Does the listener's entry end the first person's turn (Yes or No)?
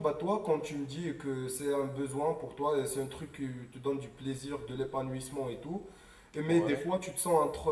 No